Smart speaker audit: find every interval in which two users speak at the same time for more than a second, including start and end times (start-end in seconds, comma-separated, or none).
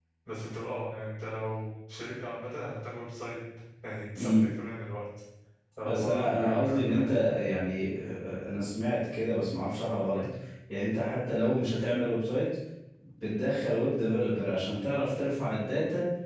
5.8-7.1